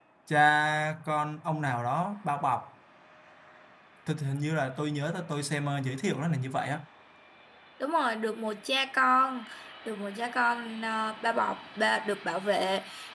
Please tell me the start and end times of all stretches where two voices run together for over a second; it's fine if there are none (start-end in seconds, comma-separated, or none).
none